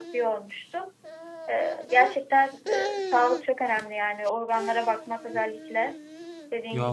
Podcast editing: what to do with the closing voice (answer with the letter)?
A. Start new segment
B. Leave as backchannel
A